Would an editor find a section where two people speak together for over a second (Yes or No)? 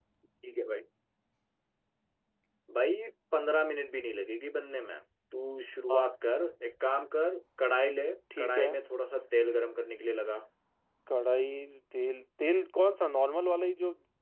No